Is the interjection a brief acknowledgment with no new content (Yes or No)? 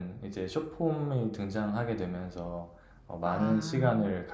Yes